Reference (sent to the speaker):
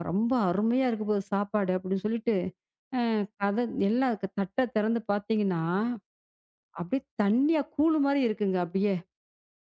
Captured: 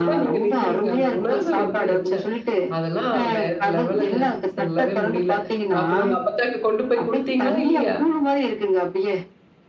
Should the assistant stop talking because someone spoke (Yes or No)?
Yes